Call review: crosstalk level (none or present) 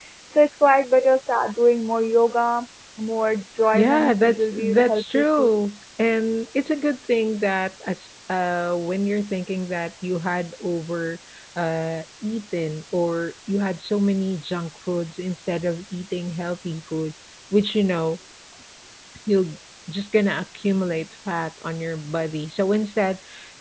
present